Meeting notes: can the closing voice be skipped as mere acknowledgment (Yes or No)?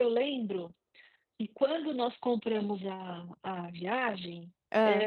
Yes